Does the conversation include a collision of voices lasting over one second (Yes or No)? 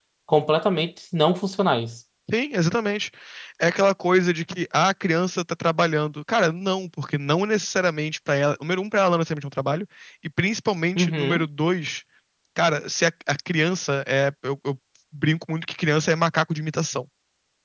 No